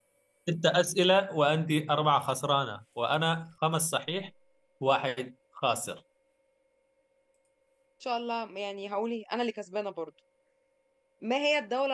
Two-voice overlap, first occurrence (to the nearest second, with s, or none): none